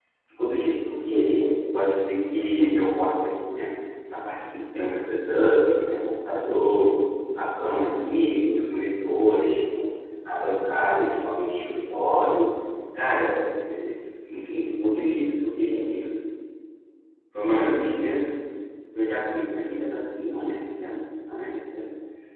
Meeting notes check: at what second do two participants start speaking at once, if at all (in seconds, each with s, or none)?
none